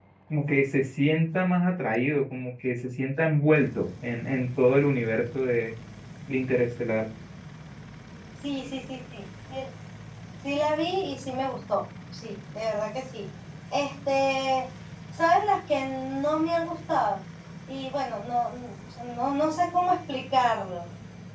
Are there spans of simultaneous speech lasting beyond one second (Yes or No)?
No